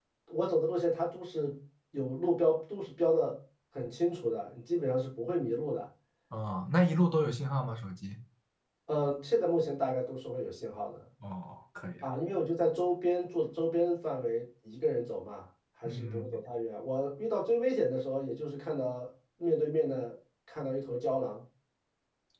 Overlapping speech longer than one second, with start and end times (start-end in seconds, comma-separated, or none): none